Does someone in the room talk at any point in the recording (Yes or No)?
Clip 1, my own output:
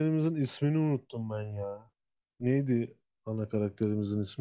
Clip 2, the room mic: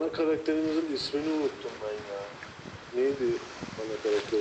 No